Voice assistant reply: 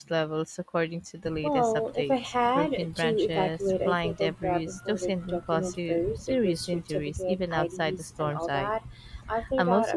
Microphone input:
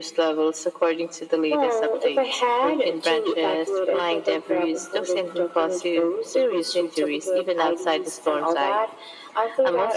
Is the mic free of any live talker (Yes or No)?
Yes